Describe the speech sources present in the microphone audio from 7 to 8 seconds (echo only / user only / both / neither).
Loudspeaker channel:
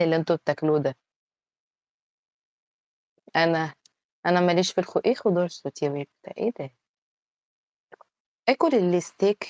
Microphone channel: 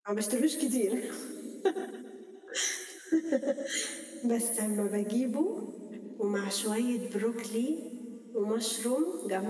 user only